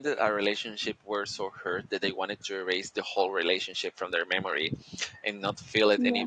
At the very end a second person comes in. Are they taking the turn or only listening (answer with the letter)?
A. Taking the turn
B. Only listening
B